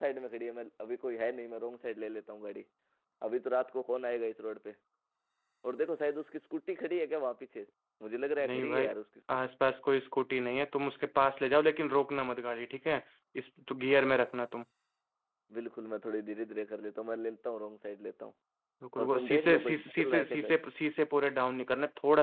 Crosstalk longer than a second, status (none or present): present